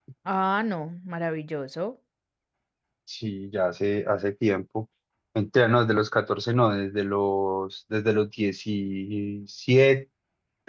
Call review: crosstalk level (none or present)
none